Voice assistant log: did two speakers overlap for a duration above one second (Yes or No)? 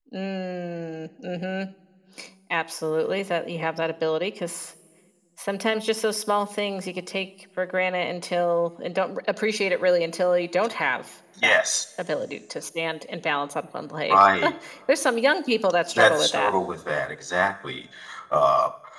No